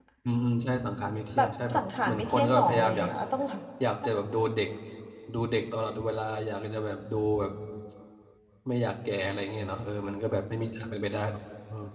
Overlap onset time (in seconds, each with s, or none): 1.4 s